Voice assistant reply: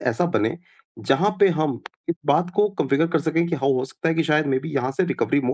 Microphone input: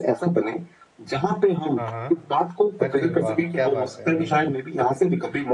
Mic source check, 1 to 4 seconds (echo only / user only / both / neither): both